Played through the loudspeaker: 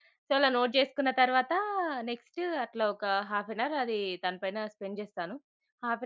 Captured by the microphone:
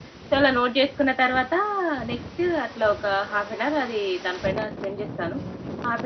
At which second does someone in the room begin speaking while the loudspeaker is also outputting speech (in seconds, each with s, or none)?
none